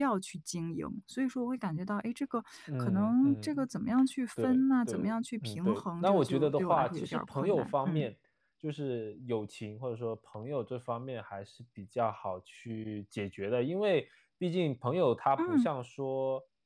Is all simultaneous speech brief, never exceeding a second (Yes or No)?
No